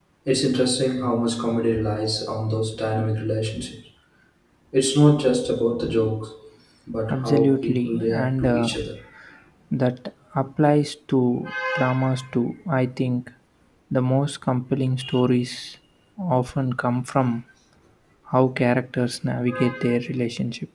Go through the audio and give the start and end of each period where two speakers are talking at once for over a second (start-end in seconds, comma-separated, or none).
7.1-8.8